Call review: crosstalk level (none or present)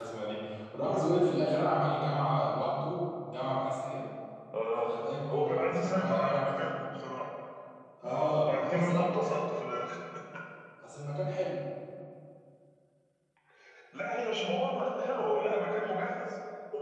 present